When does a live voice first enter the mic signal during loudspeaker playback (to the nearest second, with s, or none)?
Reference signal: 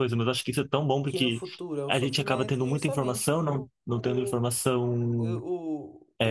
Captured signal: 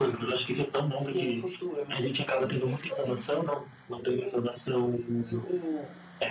none